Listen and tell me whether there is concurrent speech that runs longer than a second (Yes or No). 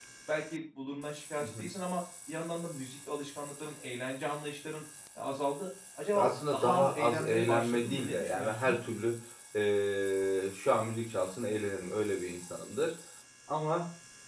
Yes